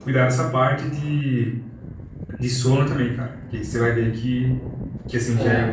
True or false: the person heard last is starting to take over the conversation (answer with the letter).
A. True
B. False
B